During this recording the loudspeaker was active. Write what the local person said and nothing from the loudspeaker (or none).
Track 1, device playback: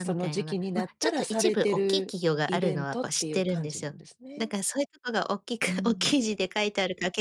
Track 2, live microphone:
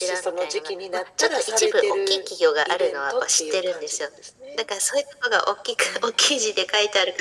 none